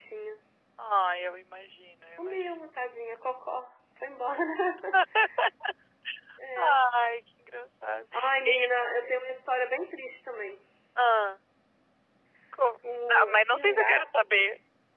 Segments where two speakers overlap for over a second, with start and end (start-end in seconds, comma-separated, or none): 12.8-14.1